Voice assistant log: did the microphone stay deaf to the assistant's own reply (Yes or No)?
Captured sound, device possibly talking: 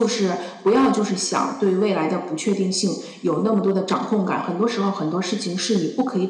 No